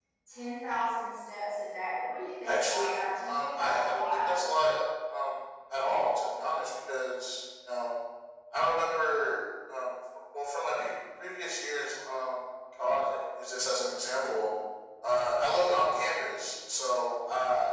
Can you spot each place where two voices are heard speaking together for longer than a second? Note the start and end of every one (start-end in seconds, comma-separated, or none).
2.4-4.3